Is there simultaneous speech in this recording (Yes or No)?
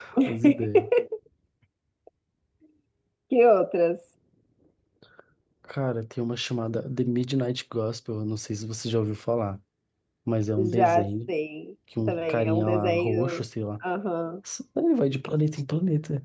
Yes